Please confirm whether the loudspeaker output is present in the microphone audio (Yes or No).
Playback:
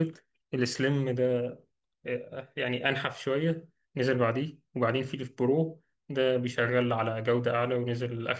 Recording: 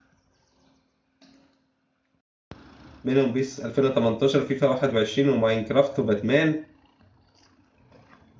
No